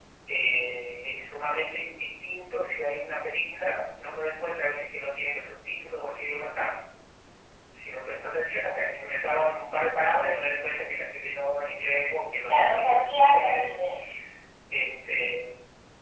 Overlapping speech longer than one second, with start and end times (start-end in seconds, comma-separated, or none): 12.5-13.8